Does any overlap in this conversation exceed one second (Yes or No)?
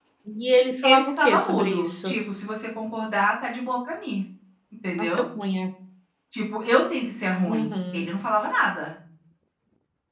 Yes